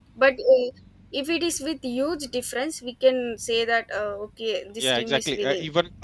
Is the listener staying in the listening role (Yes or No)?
No